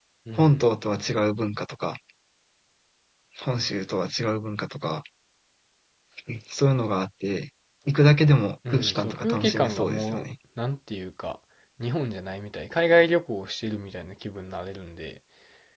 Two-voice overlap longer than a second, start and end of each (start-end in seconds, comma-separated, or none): 8.7-10.2